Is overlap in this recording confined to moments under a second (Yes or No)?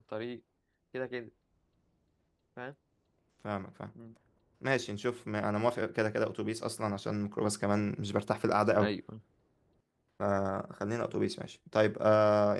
Yes